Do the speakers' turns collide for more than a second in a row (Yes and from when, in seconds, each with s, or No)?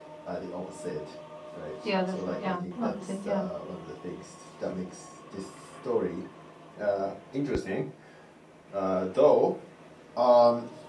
Yes, from 2.1 s